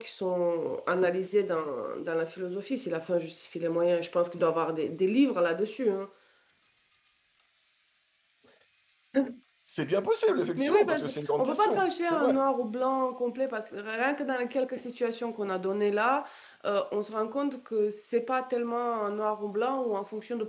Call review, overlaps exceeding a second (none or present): present